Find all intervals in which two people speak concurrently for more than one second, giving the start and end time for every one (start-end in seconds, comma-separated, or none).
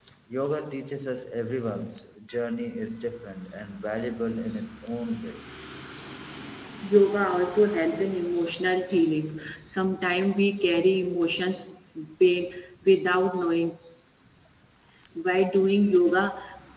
none